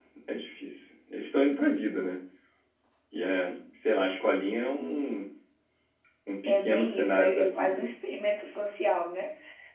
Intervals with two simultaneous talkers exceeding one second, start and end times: 6.4-7.8

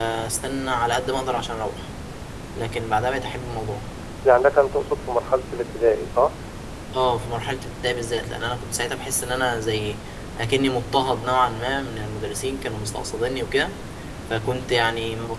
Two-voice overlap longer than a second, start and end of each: none

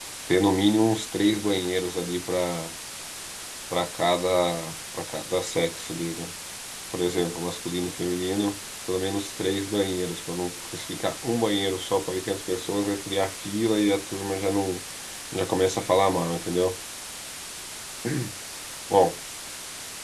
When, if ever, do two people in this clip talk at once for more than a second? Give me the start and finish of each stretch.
none

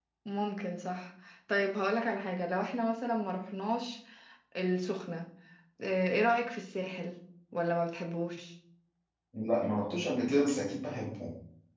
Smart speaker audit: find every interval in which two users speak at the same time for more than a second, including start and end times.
none

